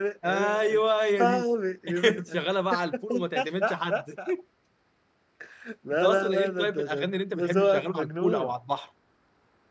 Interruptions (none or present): present